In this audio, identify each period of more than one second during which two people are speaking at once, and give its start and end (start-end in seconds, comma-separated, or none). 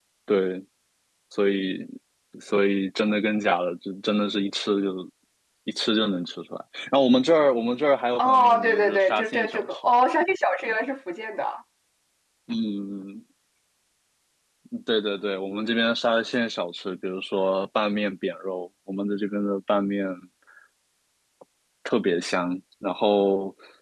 8.2-9.9